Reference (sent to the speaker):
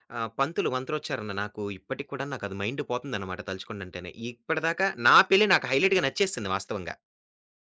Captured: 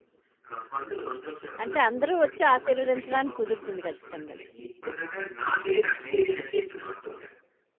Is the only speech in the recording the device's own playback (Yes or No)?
No